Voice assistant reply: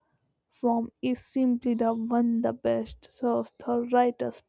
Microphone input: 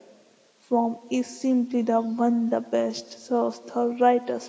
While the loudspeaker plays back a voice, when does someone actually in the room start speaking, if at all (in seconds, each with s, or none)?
none